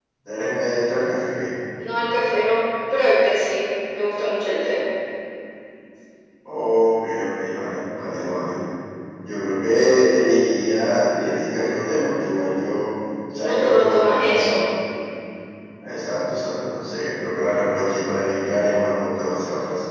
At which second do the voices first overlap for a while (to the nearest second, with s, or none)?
13 s